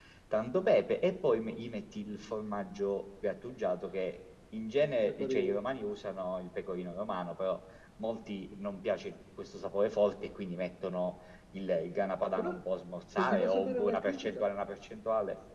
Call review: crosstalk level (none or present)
present